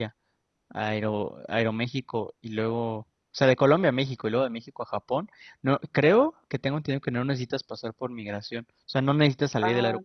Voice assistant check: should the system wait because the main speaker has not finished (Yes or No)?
No